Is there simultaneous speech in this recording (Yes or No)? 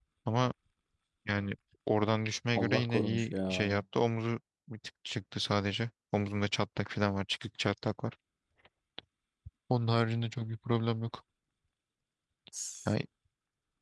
Yes